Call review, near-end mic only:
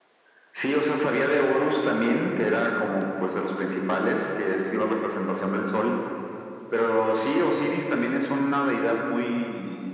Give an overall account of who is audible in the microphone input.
echo only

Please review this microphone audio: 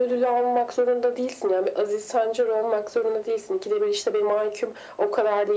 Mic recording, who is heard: echo only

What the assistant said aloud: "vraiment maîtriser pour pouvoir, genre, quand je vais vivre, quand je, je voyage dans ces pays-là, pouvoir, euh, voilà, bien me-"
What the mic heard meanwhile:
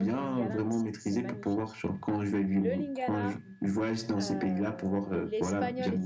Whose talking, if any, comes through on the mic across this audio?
both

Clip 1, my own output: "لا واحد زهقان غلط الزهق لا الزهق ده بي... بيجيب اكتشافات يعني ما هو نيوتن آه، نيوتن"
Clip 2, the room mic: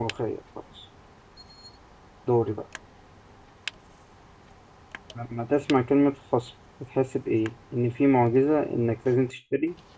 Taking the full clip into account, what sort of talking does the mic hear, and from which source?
user only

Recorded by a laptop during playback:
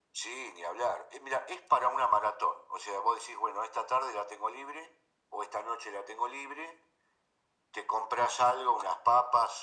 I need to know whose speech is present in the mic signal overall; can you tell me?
echo only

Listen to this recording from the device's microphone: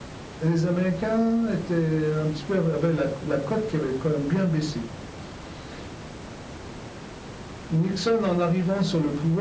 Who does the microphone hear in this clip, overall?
echo only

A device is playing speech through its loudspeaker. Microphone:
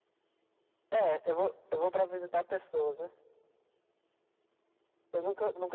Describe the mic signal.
echo only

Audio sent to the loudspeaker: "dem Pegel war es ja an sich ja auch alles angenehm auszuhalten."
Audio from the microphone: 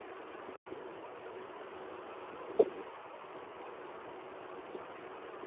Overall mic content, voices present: neither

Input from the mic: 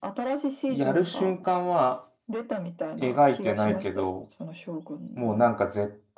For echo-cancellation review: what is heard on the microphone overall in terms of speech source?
both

